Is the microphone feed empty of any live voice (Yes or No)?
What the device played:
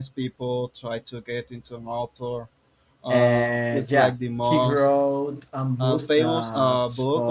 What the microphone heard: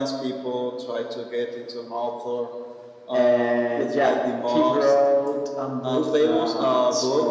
Yes